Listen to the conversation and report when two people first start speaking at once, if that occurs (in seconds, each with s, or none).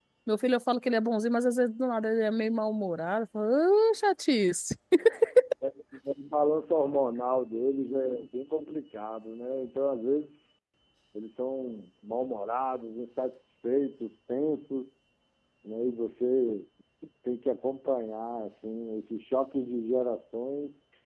none